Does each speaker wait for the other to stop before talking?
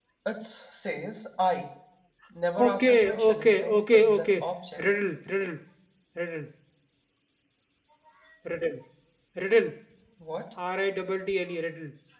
No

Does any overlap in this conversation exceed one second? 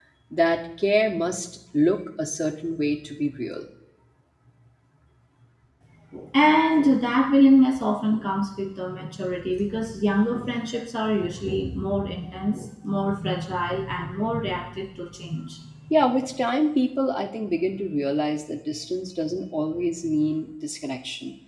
No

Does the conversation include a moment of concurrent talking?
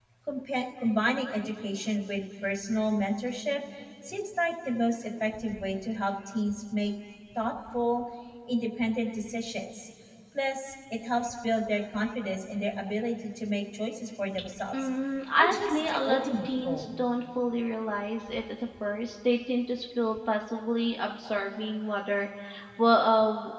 Yes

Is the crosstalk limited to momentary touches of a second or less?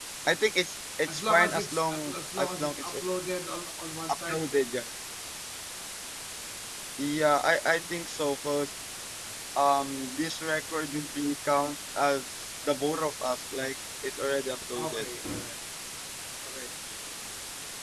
No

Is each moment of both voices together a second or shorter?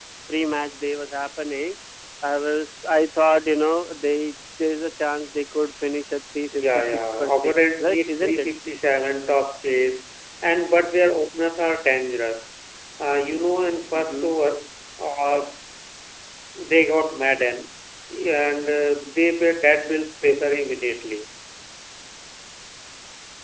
No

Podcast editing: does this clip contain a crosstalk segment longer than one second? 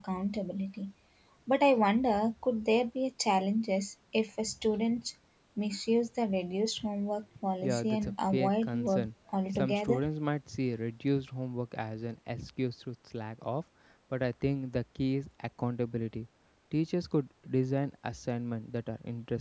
Yes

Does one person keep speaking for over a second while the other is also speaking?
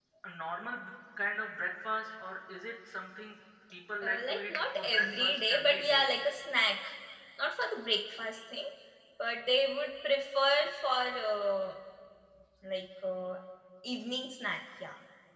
Yes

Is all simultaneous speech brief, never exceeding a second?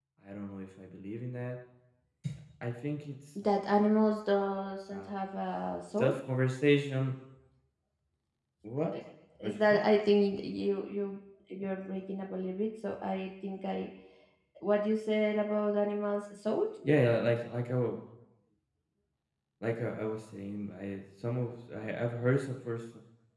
Yes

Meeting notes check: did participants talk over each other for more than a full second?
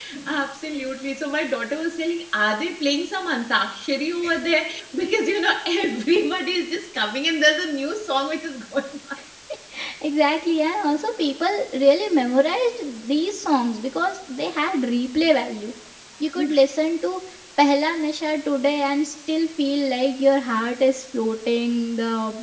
No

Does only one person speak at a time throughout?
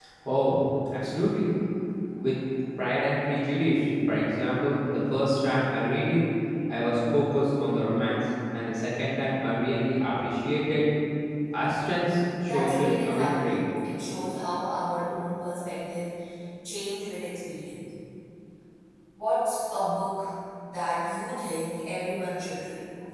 No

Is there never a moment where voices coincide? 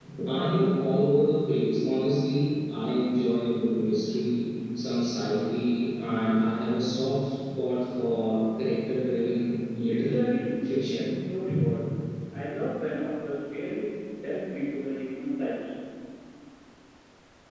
No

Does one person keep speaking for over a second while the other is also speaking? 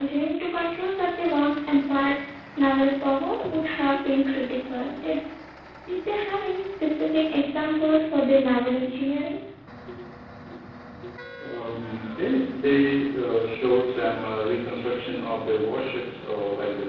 No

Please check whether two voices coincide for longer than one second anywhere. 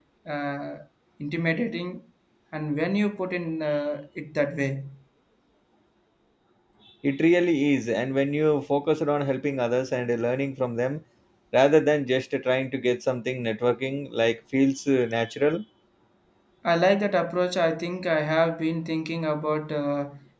No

